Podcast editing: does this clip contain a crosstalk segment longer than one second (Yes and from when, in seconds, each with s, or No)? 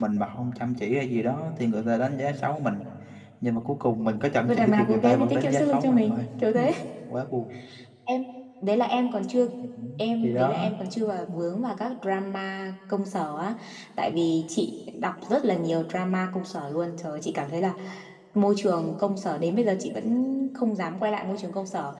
Yes, from 4.5 s